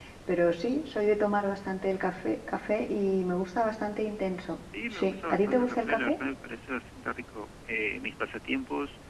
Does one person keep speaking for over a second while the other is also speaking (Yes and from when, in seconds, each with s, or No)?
Yes, from 4.7 s